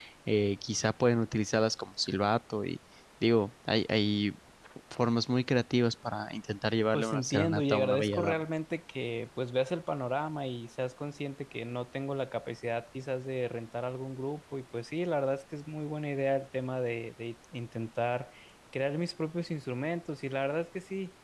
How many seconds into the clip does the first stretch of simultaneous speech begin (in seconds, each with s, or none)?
6.9 s